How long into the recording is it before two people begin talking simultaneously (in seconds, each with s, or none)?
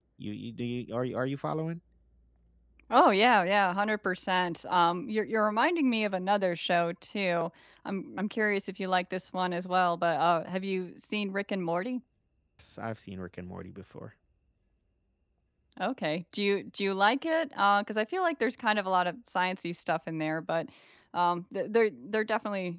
none